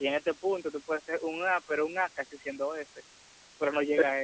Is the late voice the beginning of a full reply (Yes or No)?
No